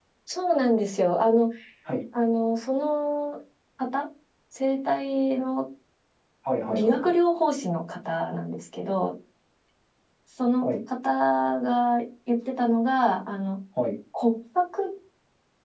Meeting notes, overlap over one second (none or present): none